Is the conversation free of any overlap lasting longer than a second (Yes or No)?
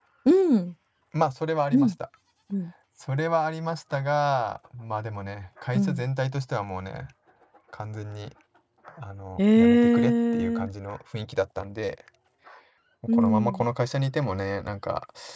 No